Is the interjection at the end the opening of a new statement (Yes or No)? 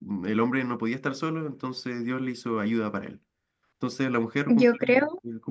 No